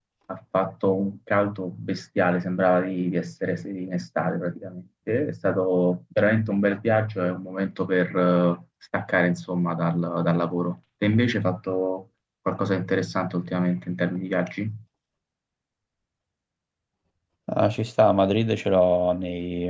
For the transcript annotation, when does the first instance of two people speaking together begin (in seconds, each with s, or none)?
none